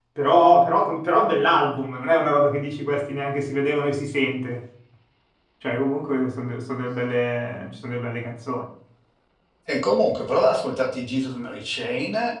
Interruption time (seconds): none

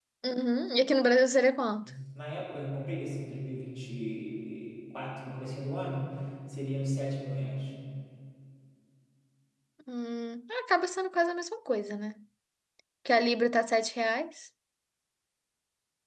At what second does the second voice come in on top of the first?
none

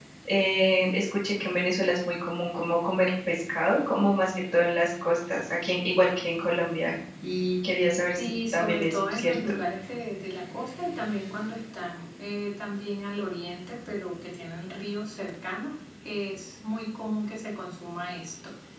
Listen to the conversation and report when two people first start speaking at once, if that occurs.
8.2 s

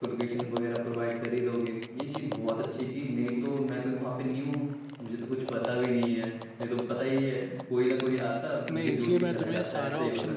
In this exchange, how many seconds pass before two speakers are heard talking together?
8.7 s

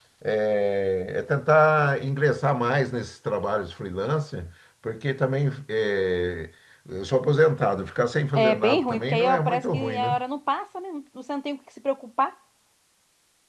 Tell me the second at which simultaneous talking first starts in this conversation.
8.3 s

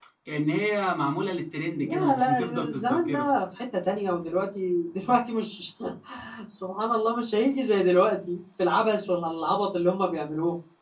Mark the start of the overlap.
1.8 s

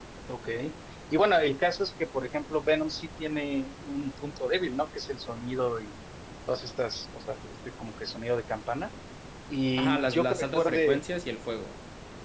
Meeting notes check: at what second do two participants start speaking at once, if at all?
9.8 s

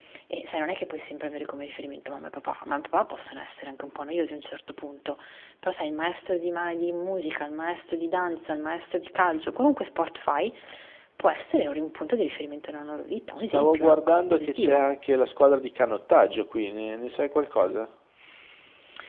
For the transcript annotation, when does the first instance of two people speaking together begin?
13.5 s

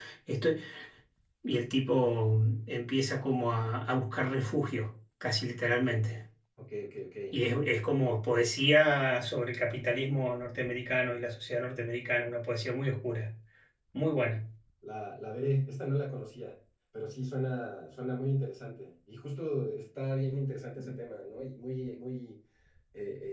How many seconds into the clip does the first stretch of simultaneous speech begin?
none

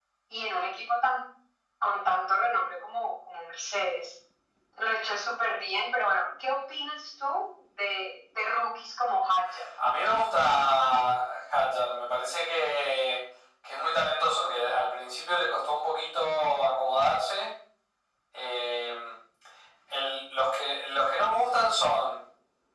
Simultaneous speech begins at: none

